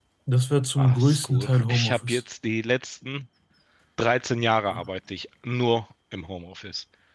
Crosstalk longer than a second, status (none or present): present